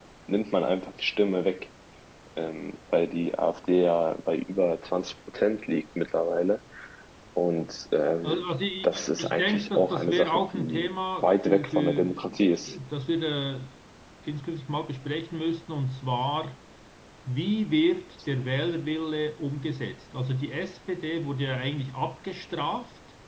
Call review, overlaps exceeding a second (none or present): present